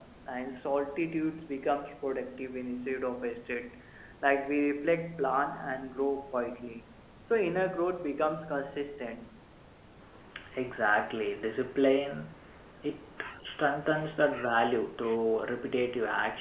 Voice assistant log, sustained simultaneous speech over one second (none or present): none